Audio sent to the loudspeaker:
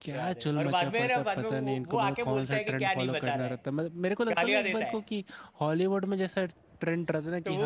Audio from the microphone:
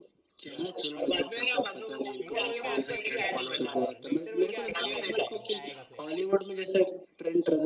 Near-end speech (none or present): present